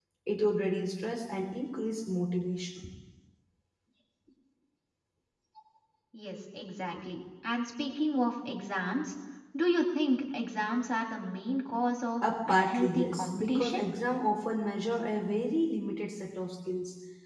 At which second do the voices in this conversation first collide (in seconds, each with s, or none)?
12.2 s